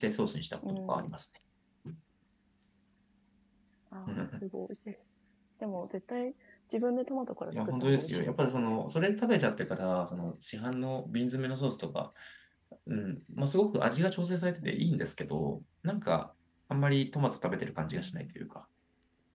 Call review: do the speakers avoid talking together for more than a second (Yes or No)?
No